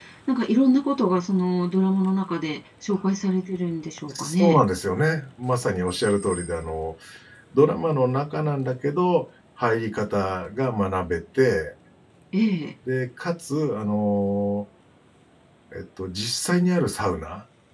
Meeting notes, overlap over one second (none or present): none